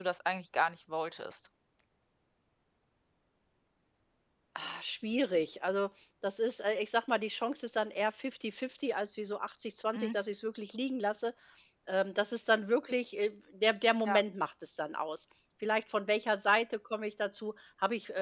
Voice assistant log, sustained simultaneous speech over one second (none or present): none